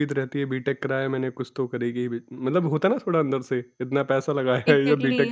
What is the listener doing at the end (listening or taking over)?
taking over